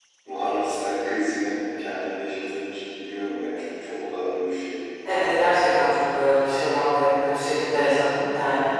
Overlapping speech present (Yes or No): No